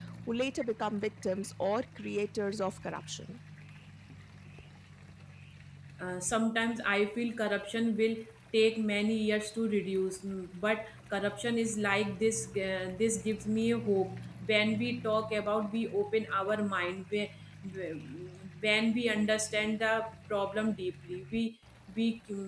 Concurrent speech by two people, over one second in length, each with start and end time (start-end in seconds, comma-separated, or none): none